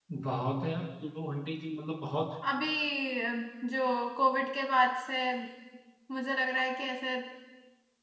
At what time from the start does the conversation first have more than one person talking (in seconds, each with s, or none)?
none